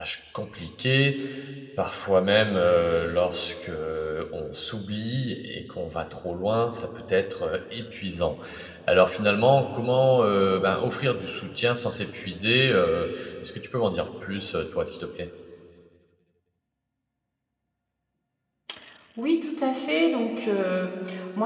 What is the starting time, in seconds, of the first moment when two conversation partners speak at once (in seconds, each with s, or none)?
none